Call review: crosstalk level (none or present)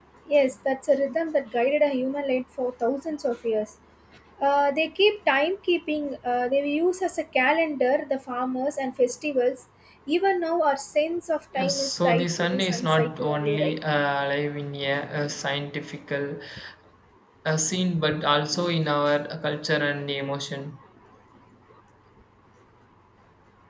present